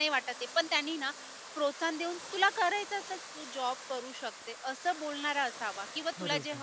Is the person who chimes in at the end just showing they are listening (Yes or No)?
Yes